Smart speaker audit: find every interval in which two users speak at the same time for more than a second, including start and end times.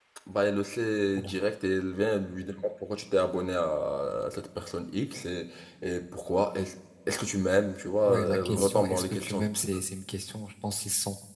8.0-9.4

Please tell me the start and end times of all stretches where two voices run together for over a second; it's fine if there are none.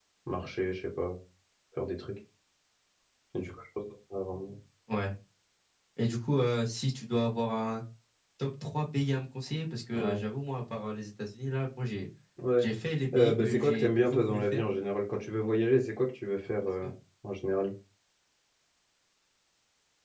13.1-14.6

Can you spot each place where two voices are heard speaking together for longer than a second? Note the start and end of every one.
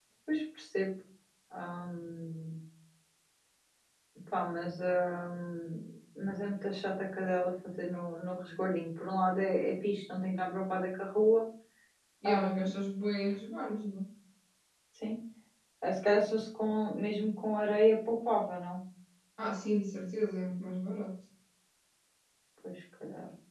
none

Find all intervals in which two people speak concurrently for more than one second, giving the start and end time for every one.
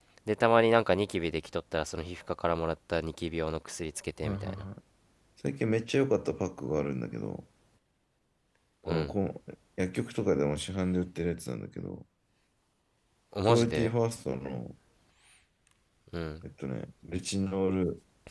none

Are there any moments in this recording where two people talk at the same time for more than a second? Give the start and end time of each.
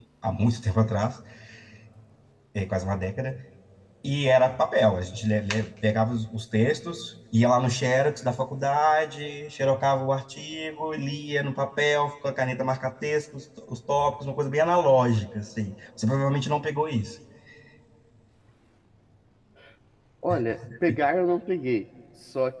none

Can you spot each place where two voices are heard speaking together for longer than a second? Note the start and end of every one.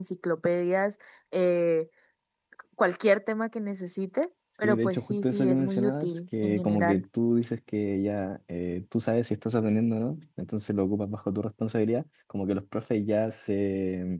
4.6-7.0

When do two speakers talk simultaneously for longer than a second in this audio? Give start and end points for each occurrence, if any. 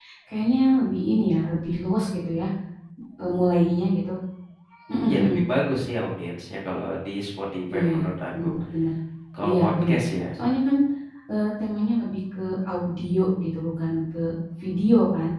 none

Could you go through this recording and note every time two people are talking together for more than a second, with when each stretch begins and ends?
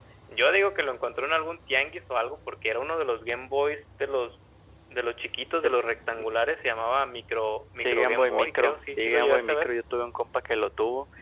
7.8-9.7

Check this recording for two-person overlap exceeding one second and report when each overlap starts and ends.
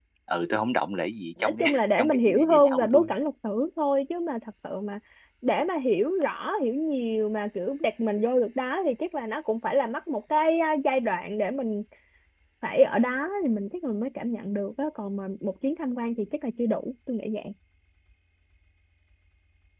1.4-3.1

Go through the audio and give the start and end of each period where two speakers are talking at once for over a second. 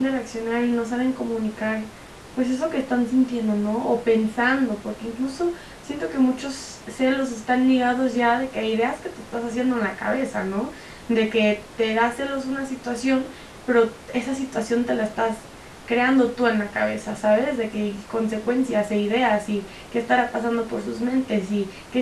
none

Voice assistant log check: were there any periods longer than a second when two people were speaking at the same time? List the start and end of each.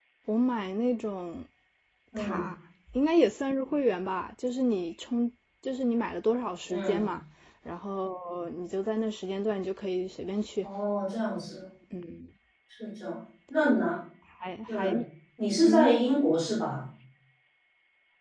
none

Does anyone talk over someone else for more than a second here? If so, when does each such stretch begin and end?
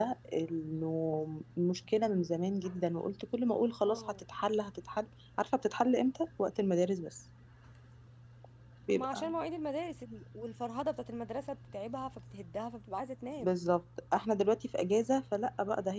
none

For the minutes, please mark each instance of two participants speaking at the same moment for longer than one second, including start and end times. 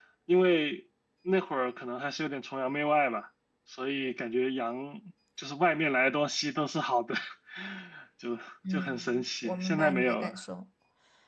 8.7-10.4

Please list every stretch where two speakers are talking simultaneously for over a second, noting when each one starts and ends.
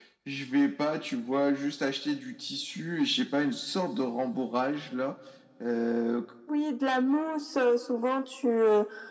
none

